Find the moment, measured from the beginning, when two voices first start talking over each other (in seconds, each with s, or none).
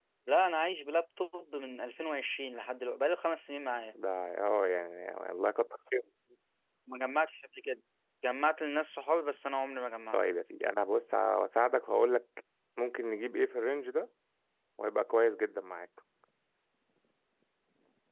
none